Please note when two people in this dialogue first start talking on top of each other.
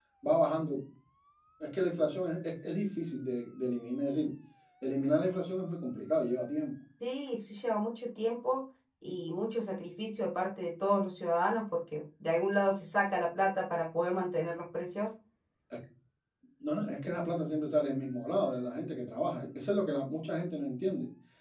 none

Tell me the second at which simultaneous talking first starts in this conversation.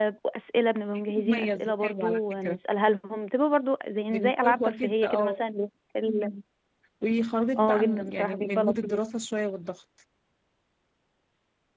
1 s

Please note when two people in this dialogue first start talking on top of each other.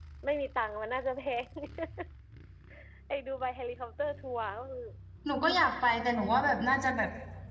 none

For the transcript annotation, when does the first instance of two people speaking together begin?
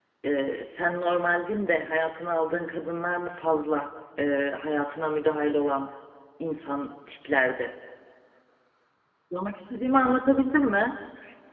none

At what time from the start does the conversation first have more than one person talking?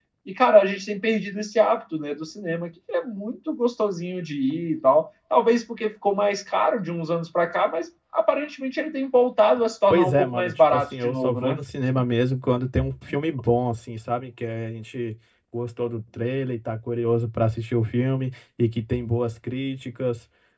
10 s

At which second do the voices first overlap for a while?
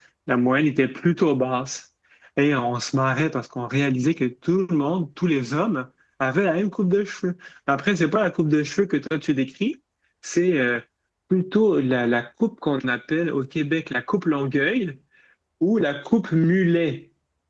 none

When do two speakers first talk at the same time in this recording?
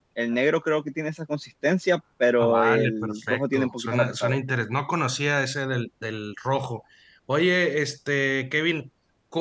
2 s

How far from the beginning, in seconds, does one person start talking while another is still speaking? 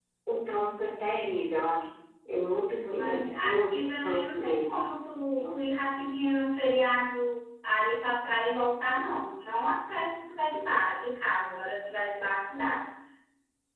3 s

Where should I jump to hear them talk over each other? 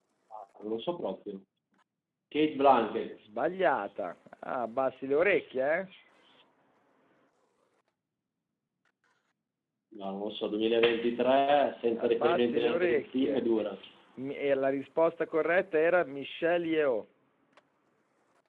12 s

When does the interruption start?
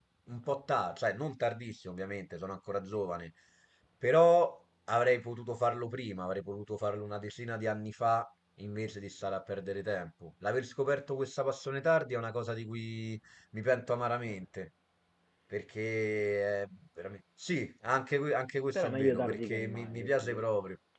19 s

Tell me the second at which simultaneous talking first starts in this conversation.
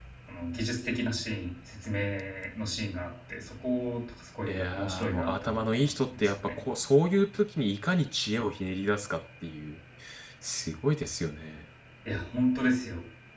4 s

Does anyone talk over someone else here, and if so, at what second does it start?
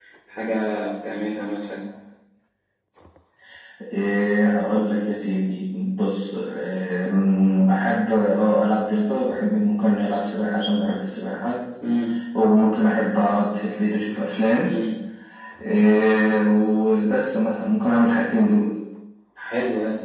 none

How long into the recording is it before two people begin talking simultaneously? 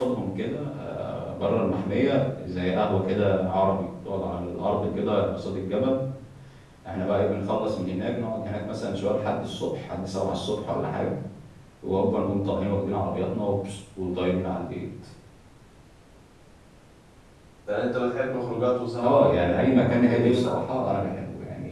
19 s

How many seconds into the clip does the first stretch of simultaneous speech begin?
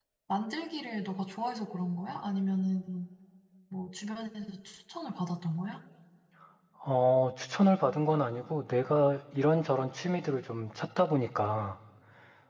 none

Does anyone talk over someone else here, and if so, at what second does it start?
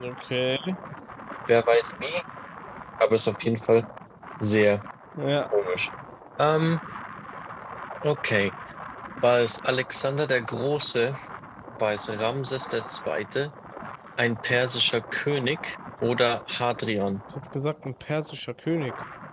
none

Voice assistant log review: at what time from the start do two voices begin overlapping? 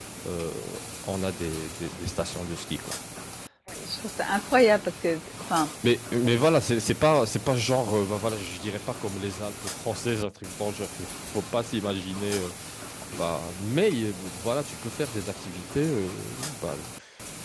none

